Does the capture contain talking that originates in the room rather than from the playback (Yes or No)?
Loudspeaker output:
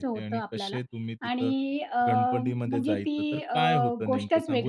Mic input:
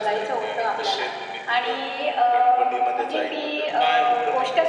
No